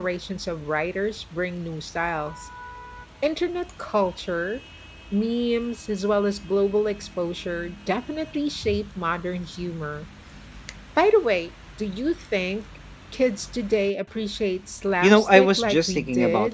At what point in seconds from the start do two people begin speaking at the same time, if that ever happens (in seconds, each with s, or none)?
15.0 s